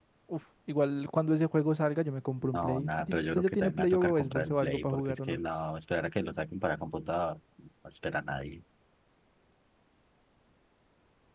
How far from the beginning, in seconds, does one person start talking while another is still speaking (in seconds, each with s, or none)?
2.4 s